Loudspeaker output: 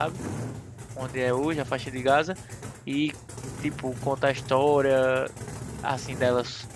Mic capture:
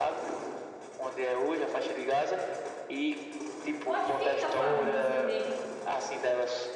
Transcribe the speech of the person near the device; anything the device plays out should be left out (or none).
modifica a forma de você ver